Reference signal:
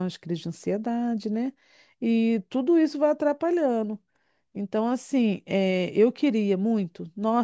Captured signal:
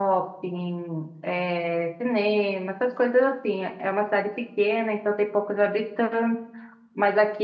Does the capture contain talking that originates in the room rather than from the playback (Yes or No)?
Yes